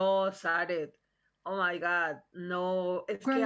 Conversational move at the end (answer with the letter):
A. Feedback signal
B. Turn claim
A